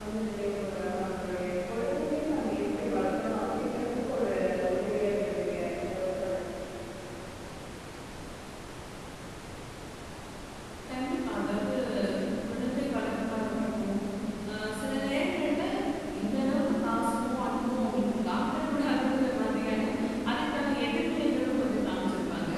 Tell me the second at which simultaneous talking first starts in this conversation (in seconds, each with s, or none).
none